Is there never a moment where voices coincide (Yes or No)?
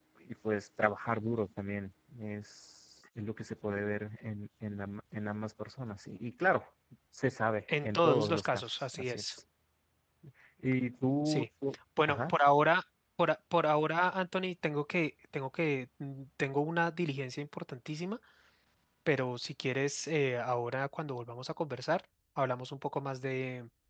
No